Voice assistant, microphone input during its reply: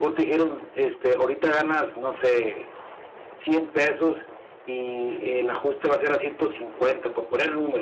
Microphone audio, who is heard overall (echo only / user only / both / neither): echo only